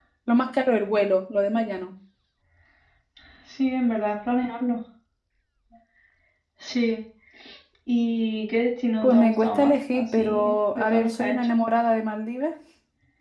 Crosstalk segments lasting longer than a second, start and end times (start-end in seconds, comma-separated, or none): 9.0-11.6